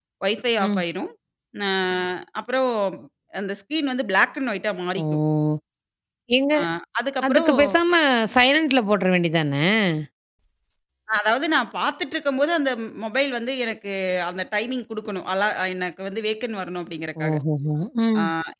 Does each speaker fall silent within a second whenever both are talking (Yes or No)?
Yes